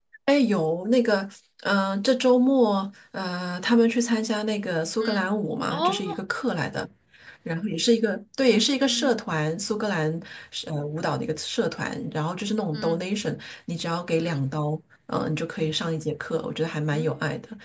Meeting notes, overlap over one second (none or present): none